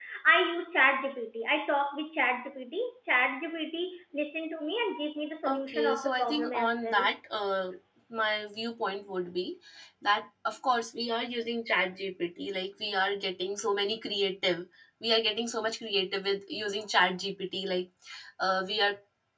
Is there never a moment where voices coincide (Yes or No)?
No